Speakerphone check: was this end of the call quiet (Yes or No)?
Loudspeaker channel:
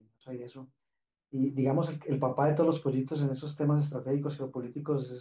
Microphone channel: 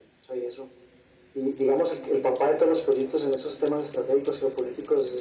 Yes